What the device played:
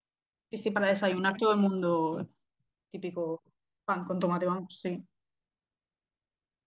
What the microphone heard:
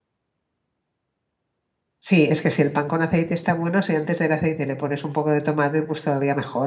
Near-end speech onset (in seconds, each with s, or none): 2.0 s